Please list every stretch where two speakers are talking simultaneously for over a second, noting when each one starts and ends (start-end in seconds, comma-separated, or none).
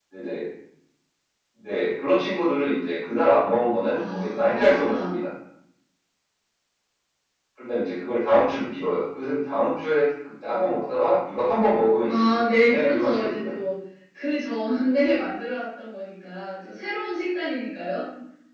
3.9-5.2, 12.1-13.5